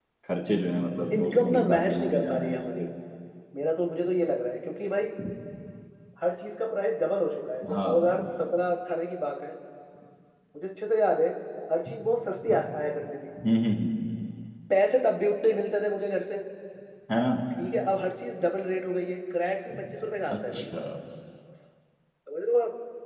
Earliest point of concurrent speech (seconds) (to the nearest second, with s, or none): 1 s